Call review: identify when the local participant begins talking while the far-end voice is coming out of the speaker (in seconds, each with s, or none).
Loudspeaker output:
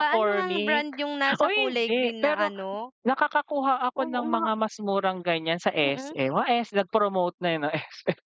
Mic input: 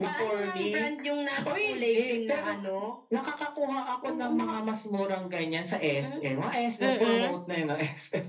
6.8 s